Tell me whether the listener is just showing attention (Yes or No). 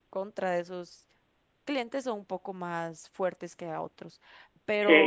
No